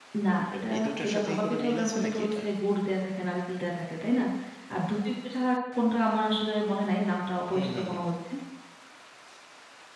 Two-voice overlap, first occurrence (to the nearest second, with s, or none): 1 s